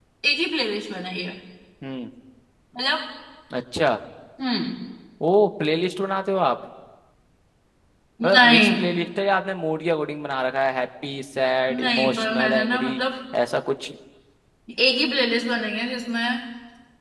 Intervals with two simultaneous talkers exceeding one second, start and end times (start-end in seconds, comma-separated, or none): 11.7-13.0